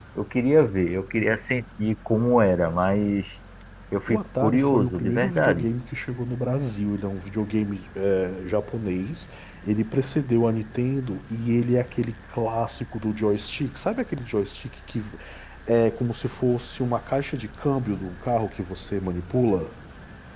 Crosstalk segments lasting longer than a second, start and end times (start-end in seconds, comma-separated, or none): 4.1-5.7